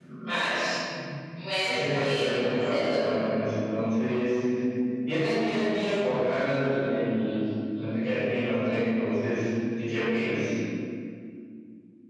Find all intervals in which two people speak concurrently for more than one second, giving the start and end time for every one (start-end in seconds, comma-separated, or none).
1.6-3.0